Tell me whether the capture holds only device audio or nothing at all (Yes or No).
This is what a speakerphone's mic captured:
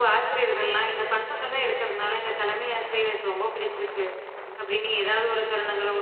No